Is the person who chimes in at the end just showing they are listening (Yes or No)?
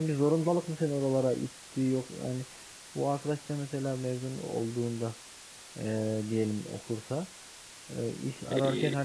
Yes